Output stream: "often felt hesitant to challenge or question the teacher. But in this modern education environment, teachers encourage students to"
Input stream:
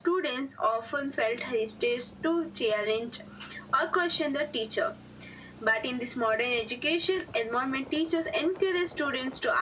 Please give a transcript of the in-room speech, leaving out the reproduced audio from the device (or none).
none